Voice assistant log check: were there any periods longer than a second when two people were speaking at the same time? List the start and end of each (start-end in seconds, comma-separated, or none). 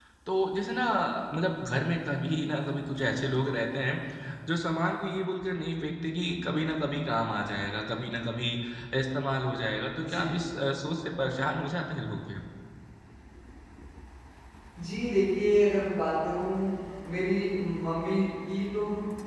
none